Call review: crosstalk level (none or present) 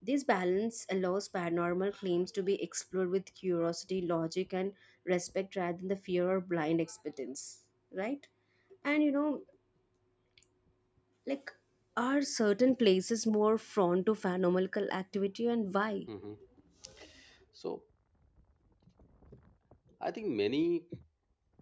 none